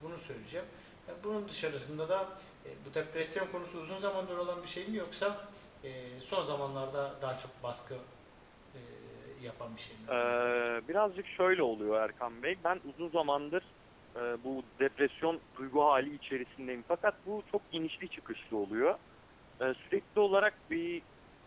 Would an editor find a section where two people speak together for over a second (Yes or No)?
No